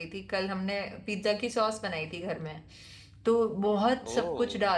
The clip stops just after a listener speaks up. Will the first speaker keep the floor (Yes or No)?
Yes